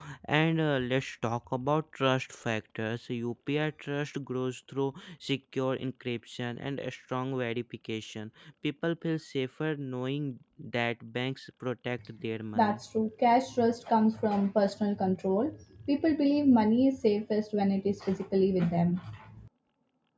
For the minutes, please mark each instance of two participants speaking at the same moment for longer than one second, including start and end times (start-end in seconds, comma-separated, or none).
none